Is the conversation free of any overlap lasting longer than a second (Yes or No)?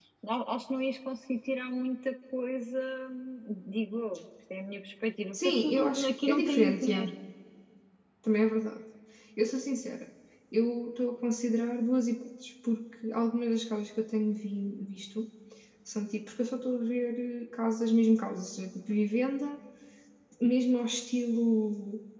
No